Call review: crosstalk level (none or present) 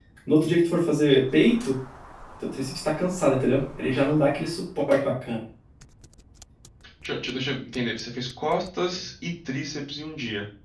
none